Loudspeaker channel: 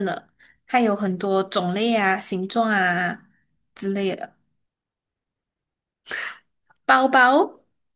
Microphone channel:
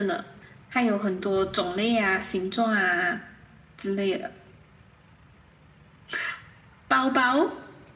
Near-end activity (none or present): none